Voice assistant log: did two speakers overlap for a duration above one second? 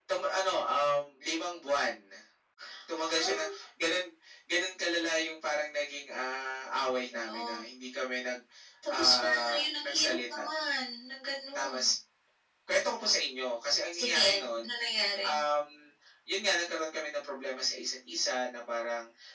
Yes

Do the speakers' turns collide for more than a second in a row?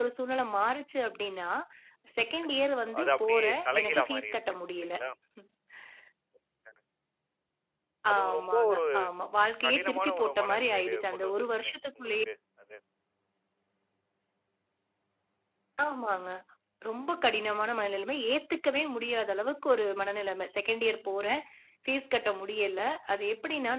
Yes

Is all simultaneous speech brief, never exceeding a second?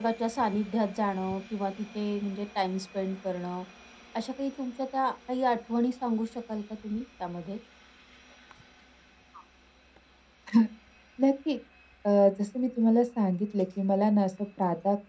Yes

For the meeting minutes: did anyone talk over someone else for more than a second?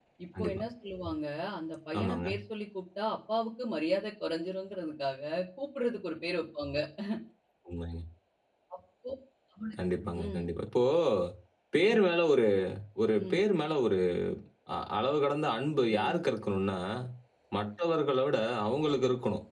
No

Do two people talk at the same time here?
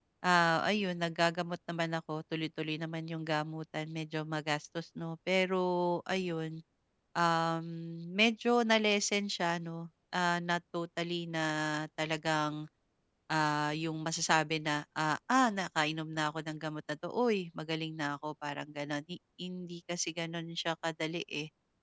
No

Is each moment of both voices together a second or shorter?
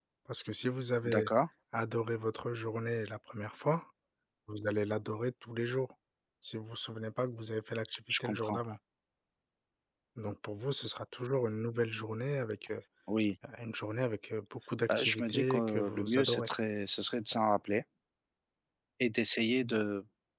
No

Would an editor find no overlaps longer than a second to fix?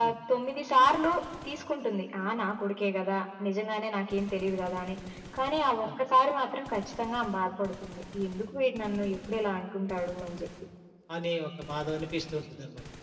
Yes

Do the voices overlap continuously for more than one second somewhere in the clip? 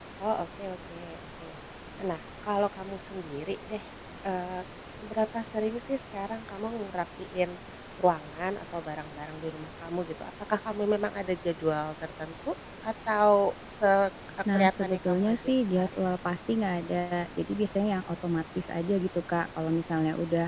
Yes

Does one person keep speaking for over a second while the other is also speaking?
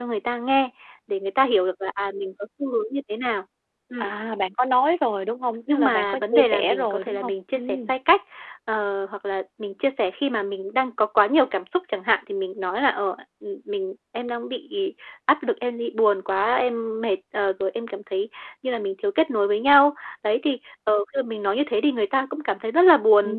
Yes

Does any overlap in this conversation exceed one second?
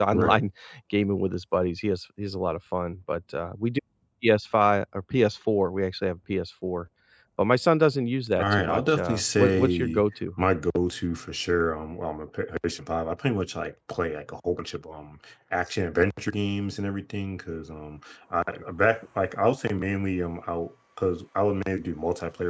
Yes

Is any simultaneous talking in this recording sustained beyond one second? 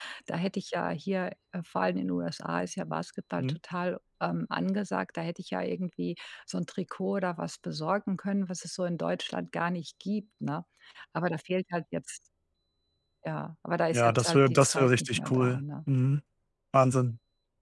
Yes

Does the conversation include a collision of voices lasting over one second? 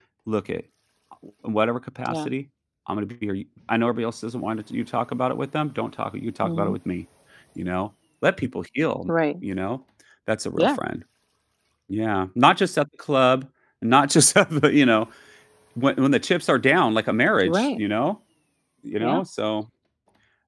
No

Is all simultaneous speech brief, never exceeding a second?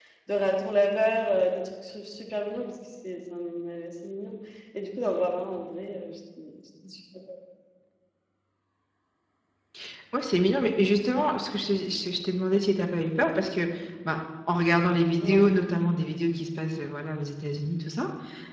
Yes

